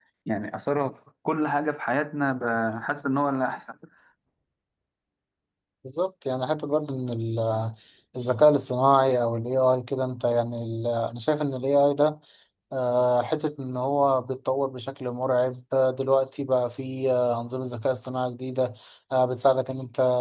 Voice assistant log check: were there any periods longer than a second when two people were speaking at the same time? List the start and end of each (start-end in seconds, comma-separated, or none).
none